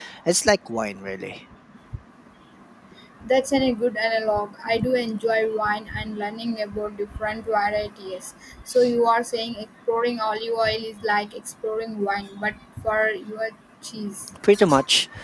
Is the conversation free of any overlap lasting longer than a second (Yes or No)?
Yes